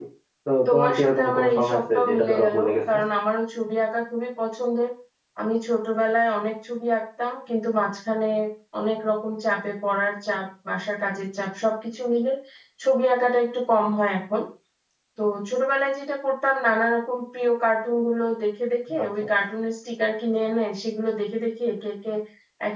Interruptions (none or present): present